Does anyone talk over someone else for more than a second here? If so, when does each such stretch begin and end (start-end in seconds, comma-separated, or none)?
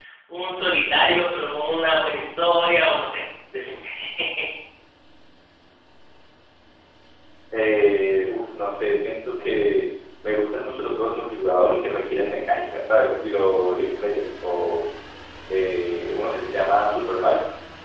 none